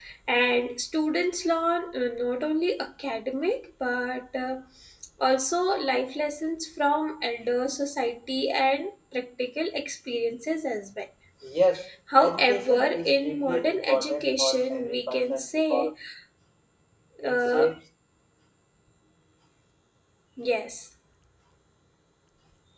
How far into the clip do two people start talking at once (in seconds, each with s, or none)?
12.2 s